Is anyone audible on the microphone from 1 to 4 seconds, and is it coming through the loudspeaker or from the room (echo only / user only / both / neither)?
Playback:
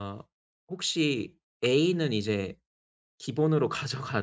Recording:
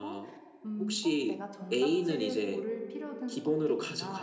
both